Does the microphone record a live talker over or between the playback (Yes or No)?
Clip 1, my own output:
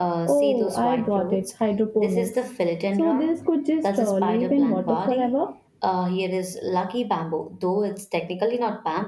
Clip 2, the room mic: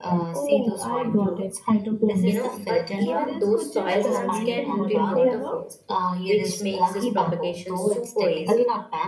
Yes